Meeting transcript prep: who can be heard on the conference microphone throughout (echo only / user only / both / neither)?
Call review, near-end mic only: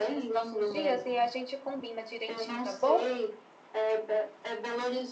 both